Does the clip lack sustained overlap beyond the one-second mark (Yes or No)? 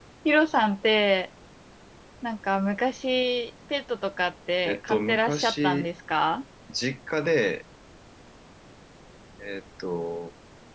No